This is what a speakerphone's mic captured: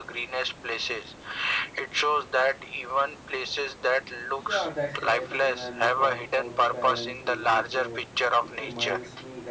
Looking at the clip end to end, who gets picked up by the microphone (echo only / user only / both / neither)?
both